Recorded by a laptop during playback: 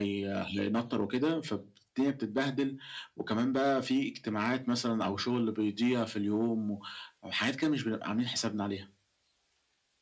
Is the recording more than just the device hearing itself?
No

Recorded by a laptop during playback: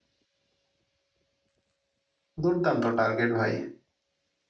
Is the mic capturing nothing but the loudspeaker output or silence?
No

